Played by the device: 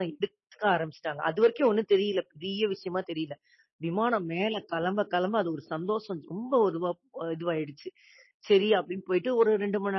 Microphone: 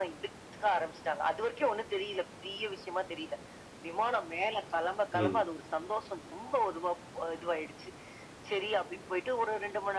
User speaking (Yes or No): Yes